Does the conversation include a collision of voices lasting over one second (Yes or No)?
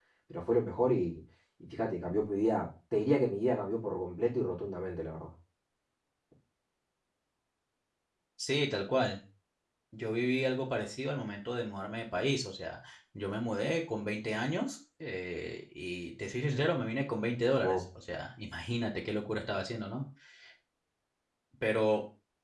No